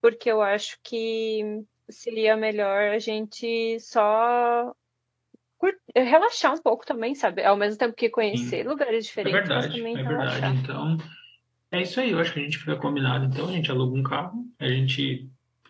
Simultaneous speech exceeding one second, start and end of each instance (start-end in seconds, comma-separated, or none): 9.2-10.5